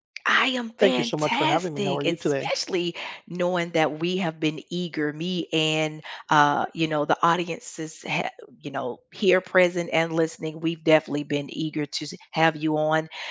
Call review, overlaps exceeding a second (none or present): present